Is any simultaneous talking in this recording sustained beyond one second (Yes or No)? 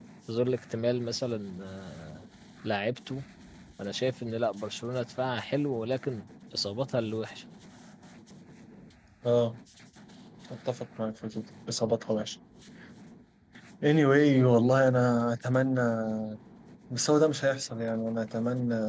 No